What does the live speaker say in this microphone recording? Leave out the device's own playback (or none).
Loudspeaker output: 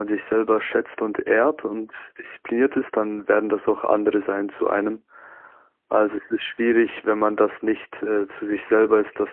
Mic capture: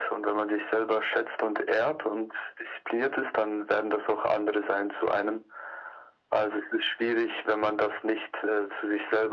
none